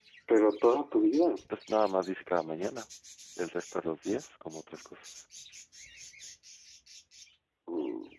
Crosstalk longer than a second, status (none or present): none